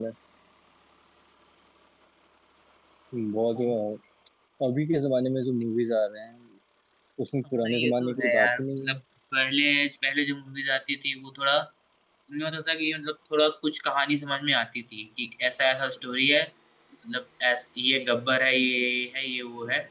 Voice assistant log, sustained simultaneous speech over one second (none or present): present